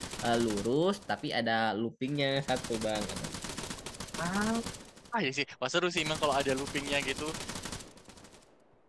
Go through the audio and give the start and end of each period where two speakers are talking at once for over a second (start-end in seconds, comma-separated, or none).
none